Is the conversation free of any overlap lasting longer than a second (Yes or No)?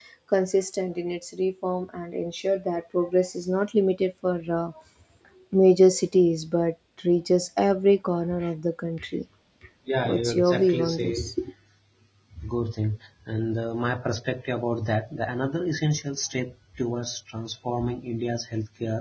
No